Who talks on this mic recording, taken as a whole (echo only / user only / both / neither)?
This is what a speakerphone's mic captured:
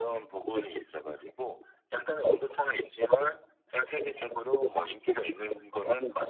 echo only